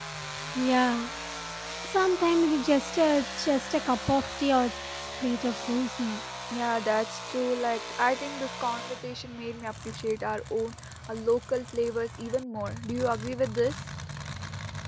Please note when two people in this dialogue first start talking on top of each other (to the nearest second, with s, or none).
none